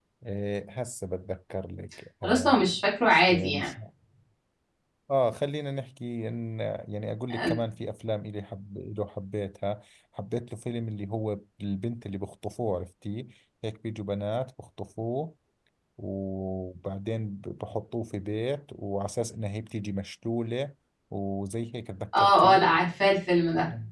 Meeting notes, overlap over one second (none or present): none